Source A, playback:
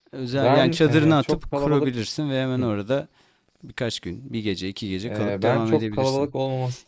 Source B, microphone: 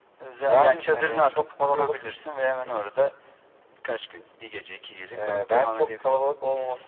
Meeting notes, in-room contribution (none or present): none